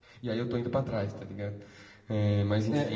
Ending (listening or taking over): taking over